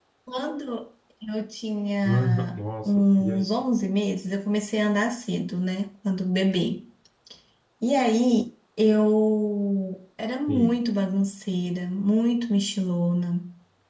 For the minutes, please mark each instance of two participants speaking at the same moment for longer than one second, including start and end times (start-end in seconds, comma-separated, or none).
2.0-3.5